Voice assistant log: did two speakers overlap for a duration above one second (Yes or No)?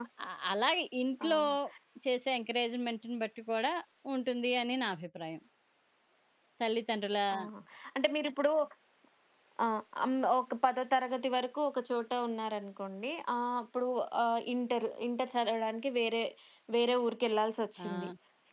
No